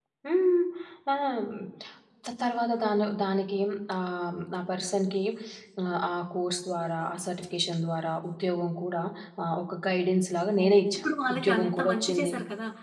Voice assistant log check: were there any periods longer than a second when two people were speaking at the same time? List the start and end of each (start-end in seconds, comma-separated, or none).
10.6-12.3